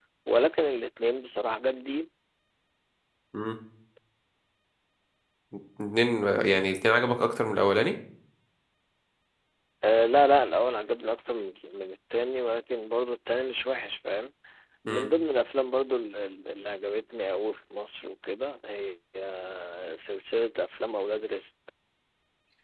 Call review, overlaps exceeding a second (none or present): none